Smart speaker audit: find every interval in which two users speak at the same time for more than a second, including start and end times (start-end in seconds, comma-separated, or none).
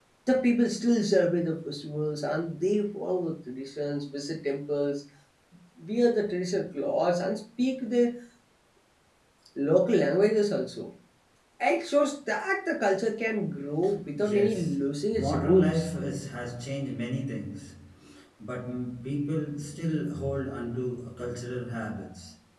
14.1-15.8